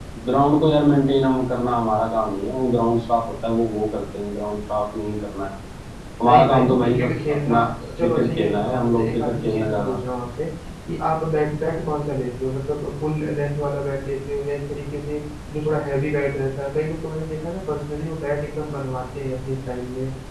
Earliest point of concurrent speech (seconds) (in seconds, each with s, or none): 6.2 s